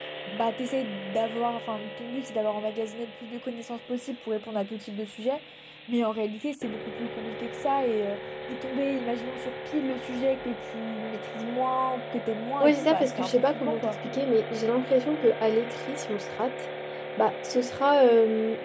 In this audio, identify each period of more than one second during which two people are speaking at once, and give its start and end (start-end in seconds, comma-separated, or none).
12.6-13.9